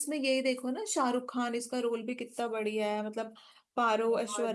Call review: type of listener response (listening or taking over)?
listening